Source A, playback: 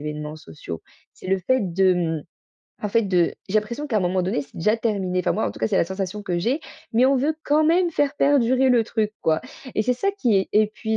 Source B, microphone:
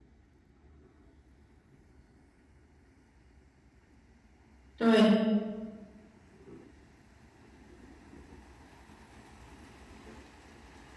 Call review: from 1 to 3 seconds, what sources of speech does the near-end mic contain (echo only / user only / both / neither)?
neither